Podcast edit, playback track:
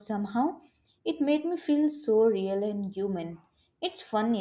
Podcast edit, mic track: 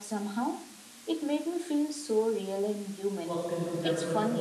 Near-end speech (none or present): present